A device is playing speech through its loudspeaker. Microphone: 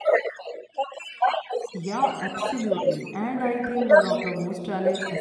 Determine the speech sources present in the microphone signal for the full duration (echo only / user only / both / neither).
both